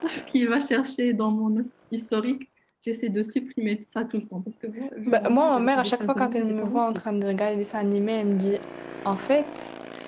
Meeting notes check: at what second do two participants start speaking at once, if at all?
5 s

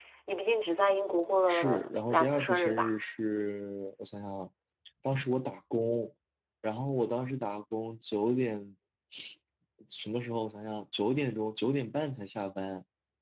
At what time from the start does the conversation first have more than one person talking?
1 s

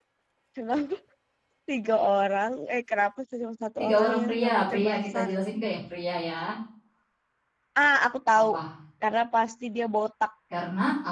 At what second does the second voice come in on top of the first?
4 s

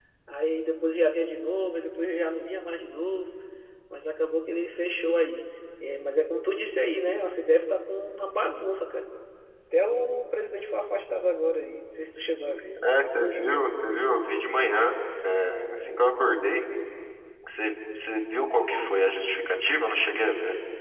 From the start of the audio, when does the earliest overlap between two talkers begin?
none

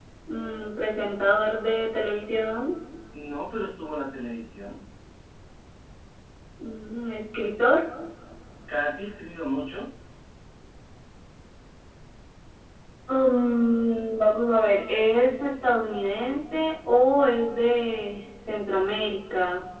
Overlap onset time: none

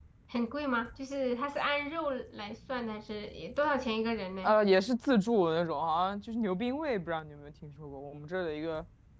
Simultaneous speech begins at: none

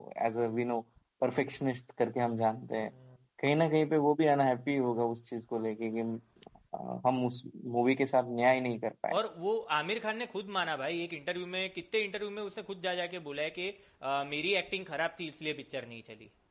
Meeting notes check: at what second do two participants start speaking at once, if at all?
none

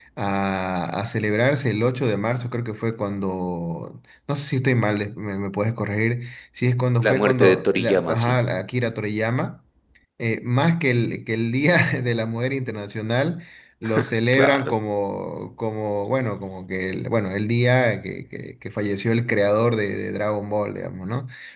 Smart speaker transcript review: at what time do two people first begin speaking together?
7 s

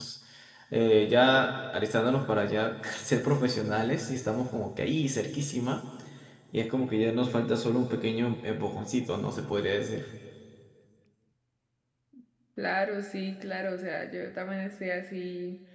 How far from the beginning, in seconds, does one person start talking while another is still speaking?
none

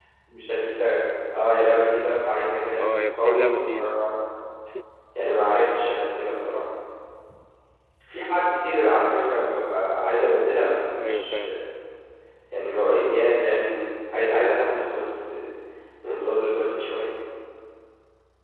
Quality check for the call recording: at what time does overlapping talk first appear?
3 s

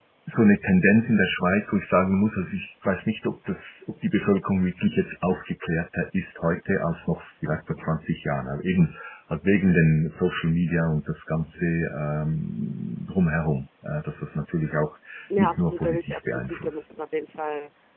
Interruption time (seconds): 15 s

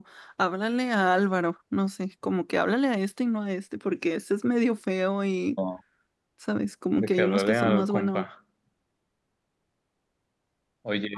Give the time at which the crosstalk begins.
7 s

